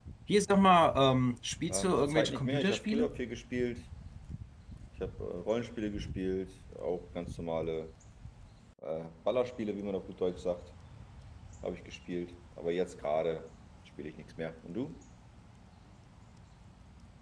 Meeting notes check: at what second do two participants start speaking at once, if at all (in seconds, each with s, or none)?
1.7 s